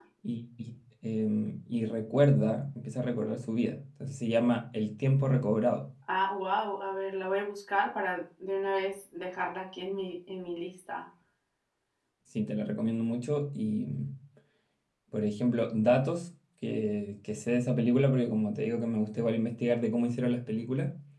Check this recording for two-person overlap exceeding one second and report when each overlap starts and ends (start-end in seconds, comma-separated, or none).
none